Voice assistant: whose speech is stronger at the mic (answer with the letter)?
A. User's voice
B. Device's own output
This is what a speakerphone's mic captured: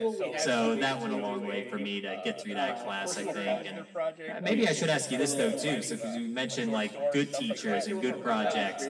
B